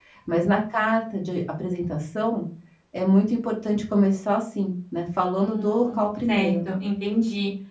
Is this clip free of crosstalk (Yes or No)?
No